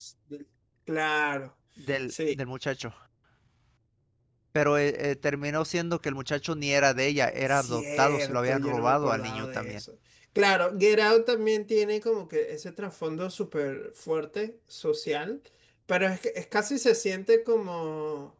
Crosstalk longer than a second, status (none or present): present